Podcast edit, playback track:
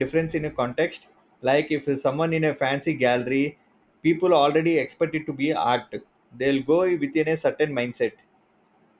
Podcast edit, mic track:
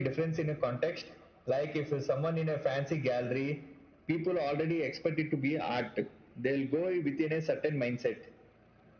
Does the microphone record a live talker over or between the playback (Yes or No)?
No